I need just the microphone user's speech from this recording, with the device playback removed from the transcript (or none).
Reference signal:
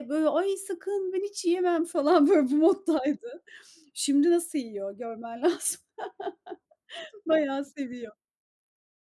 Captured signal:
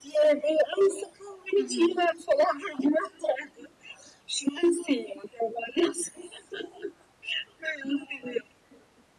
I hı.